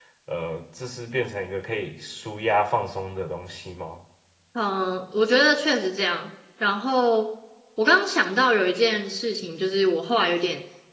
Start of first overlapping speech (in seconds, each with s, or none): none